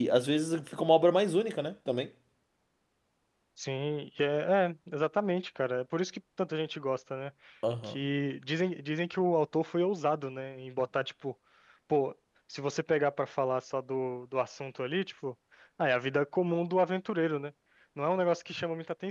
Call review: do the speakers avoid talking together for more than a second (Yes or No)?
Yes